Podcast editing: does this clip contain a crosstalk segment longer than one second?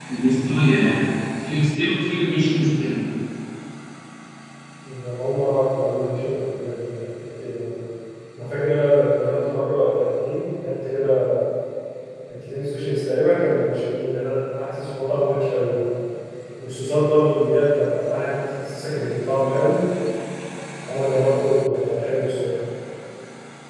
No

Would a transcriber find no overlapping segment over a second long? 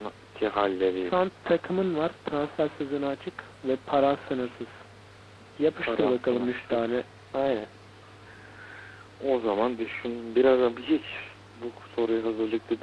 No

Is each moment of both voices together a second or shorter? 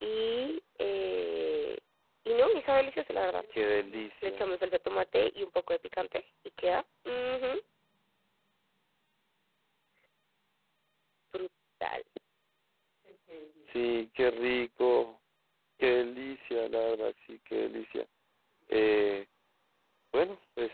Yes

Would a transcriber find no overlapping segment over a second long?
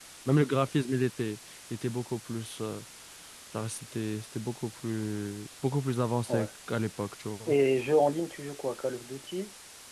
Yes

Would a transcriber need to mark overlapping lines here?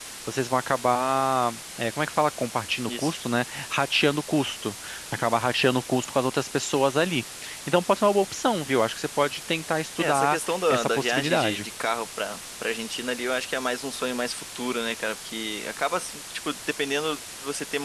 Yes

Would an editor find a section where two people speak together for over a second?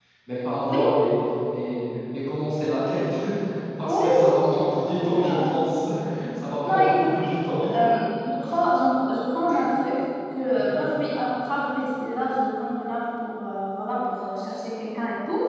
Yes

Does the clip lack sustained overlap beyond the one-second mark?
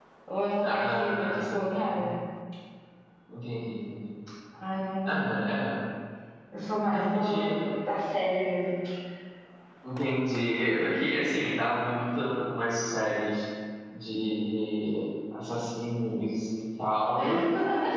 No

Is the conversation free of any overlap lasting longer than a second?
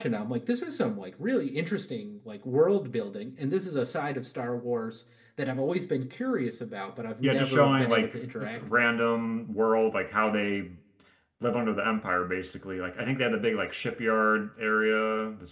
No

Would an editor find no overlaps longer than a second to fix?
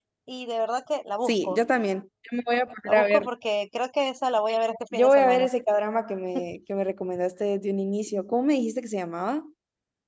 Yes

